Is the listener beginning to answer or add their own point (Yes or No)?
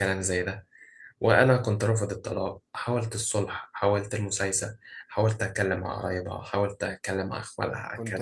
Yes